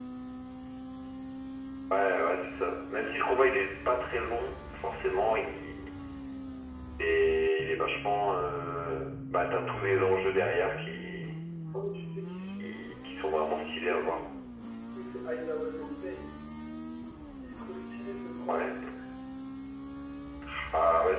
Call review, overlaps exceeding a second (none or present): present